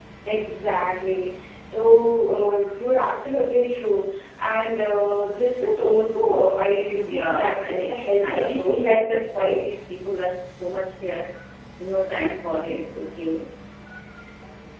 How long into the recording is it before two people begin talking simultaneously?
6.9 s

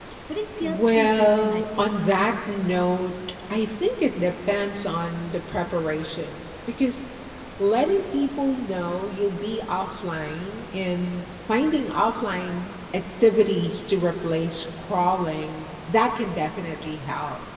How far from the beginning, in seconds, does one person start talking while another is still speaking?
0.6 s

